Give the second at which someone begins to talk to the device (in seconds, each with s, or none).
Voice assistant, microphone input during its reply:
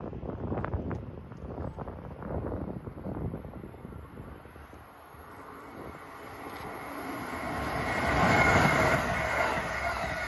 none